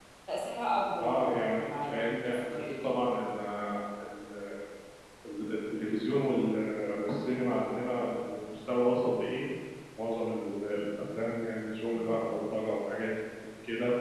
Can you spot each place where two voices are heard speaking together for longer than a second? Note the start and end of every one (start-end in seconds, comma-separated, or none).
1.0-3.0